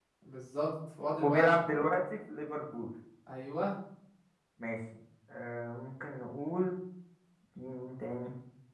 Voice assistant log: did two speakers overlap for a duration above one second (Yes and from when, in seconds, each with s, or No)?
No